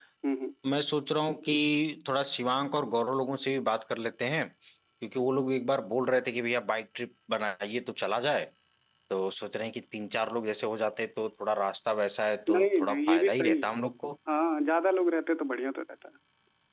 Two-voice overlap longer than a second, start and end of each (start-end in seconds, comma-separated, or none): 12.5-13.7